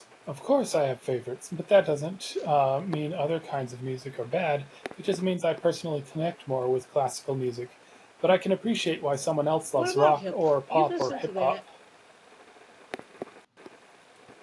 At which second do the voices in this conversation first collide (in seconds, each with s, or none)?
9.8 s